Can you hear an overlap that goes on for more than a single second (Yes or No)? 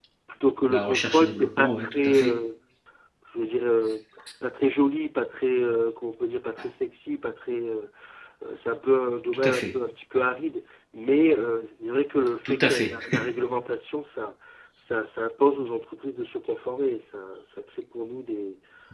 Yes